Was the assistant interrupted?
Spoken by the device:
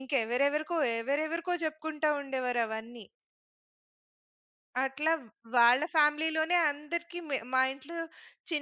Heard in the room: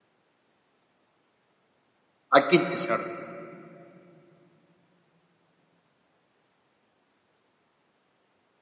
Yes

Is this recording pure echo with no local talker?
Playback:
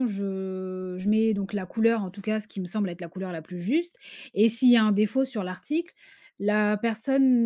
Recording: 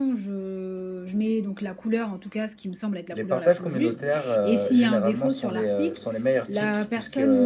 No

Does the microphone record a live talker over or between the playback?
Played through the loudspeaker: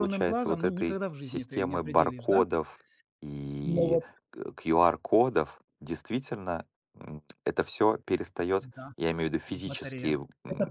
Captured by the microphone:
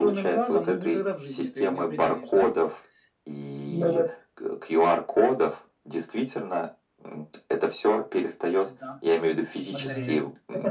Yes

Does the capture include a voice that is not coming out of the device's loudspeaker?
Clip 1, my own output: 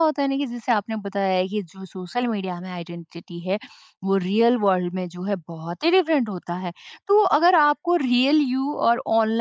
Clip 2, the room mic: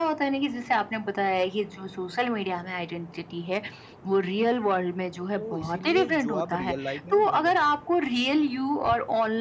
Yes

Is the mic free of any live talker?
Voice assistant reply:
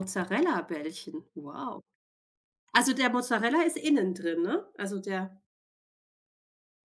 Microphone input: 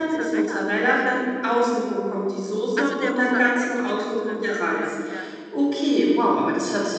No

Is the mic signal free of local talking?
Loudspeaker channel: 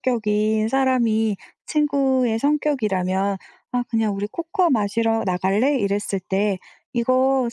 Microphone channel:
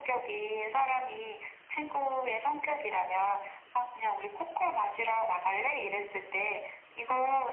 Yes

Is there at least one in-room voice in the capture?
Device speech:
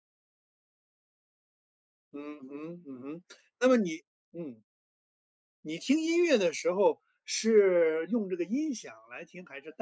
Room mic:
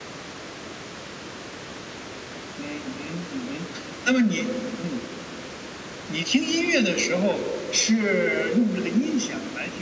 No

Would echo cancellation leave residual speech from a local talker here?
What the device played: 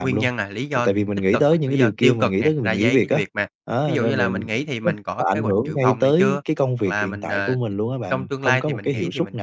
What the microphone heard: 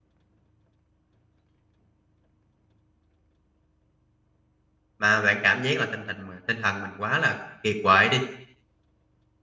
Yes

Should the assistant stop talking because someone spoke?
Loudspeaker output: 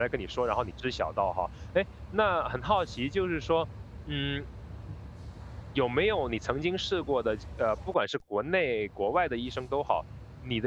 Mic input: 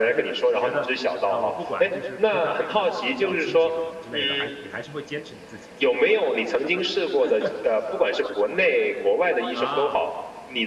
Yes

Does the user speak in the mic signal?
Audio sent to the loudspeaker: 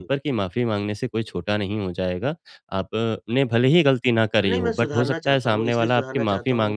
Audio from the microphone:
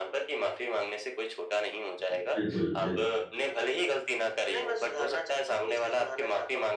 Yes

